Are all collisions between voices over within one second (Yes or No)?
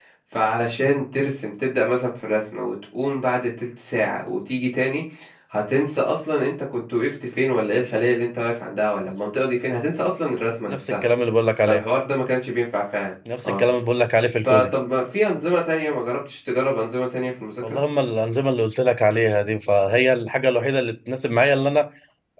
Yes